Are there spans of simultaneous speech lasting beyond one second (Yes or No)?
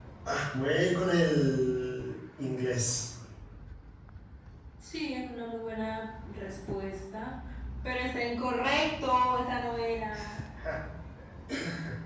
No